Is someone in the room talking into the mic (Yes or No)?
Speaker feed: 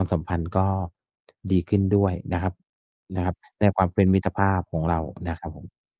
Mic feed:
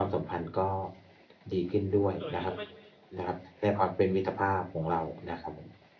Yes